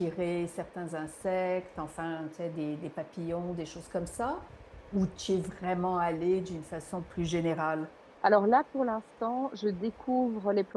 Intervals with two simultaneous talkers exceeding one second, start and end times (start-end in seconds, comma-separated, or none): none